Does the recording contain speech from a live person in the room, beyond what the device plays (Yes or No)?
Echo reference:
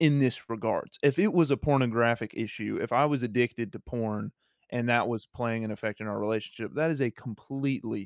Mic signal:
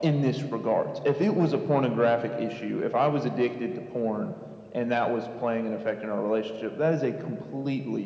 No